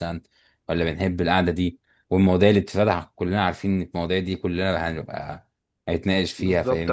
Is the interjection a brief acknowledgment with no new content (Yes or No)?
No